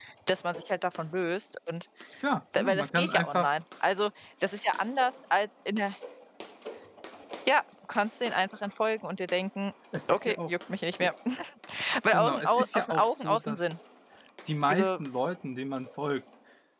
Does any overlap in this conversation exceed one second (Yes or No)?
Yes